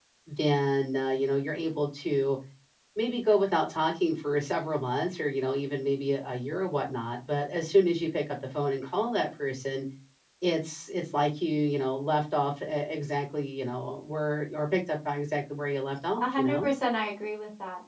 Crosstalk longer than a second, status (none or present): none